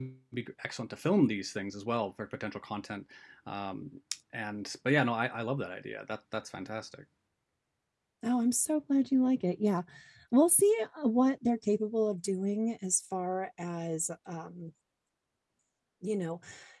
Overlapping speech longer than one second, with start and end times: none

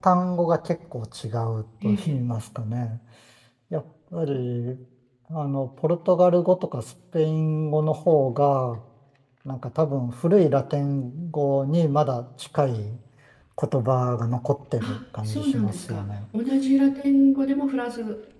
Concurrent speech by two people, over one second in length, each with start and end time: 14.8-16.1

